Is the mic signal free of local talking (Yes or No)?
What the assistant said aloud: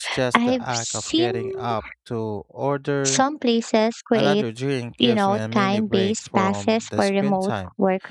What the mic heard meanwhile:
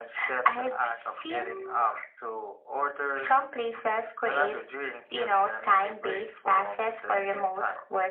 Yes